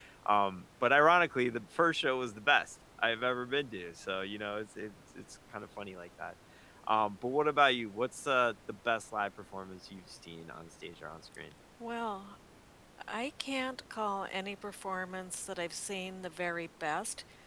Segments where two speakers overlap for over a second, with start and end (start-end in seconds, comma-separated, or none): none